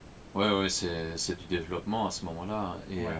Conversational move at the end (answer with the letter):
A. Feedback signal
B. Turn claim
B